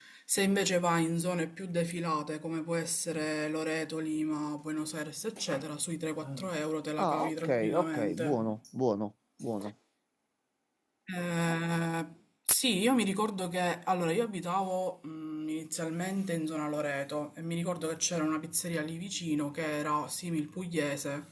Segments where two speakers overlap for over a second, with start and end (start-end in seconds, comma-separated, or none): 7.0-8.4